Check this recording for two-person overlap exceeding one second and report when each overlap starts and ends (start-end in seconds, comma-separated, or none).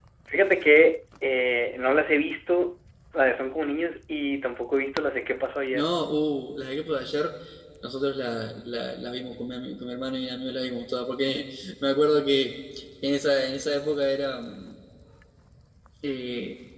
none